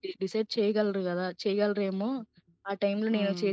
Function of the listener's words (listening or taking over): taking over